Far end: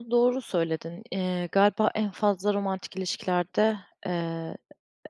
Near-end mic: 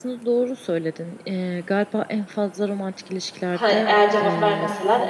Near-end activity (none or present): present